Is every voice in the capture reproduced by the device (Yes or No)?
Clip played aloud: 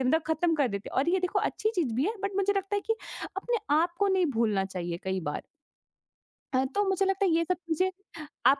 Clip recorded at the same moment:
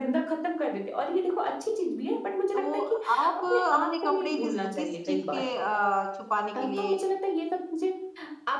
No